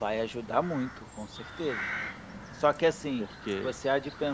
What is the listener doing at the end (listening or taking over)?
listening